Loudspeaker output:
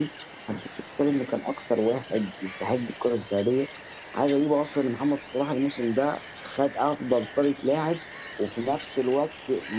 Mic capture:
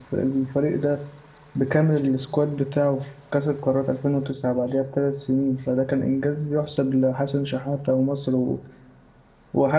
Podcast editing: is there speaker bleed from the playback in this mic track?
No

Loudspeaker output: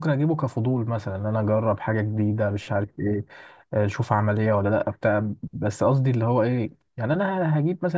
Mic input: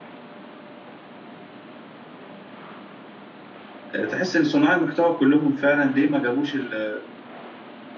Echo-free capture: Yes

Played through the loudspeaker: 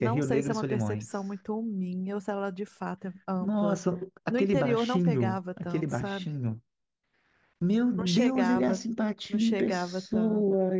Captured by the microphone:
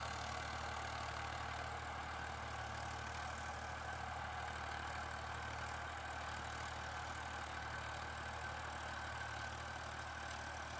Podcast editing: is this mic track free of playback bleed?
Yes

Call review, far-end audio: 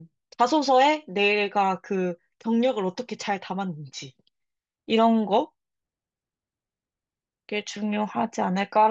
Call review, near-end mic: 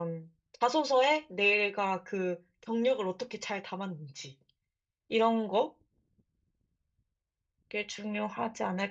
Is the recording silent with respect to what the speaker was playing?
No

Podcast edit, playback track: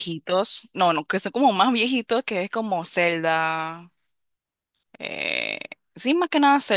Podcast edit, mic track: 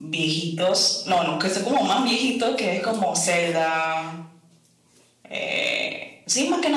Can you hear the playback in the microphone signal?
Yes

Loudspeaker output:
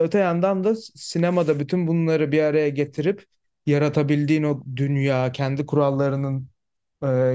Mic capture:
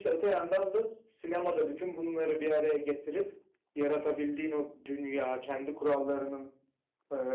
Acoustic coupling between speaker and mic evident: Yes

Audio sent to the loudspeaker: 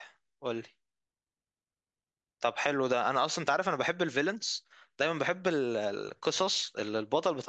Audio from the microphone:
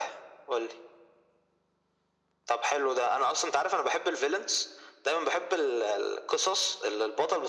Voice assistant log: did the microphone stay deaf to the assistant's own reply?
No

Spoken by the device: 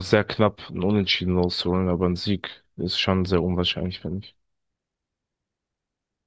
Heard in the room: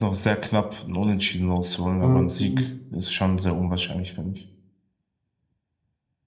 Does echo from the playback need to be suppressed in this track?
Yes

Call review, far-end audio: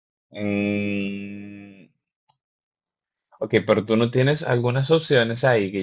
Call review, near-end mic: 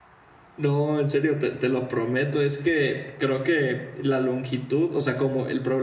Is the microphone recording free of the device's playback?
Yes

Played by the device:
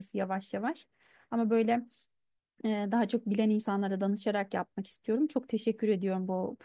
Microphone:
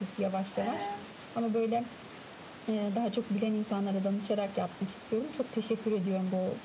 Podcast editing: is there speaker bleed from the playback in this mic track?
Yes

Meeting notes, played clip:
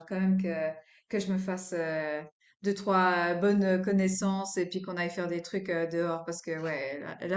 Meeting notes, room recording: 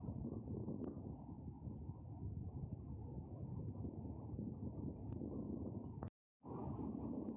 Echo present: No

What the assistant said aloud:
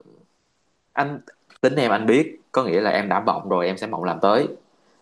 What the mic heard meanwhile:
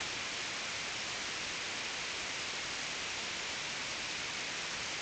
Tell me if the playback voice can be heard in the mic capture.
No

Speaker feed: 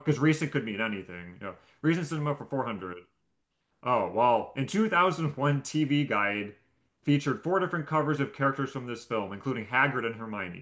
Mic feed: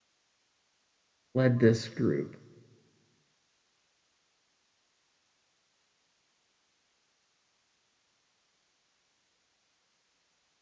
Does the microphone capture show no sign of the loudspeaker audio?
Yes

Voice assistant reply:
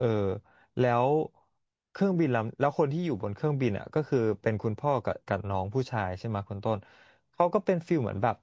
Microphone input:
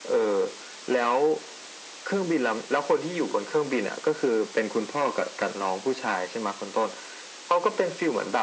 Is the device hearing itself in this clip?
Yes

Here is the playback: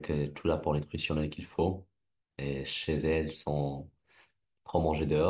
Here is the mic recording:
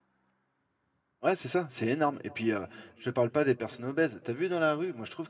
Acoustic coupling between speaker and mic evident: No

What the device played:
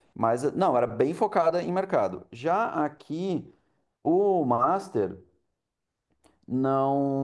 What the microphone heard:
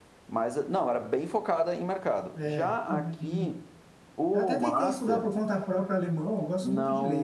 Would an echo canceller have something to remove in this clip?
Yes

